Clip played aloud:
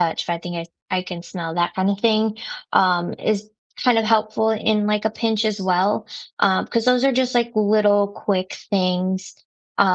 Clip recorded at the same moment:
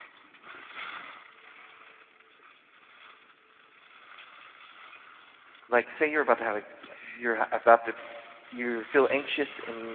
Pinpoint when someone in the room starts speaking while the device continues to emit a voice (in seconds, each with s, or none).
5.7 s